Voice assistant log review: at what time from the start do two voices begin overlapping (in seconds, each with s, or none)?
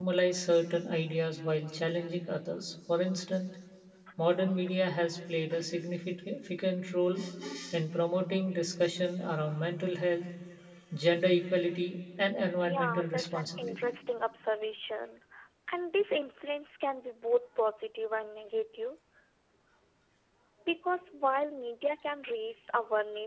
12.6 s